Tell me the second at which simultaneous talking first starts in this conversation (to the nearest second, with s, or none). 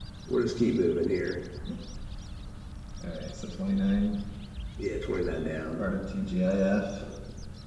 none